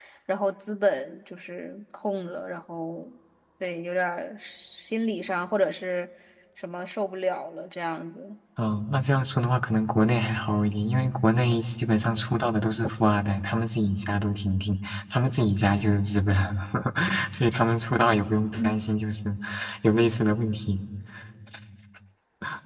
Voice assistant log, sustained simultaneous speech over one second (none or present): none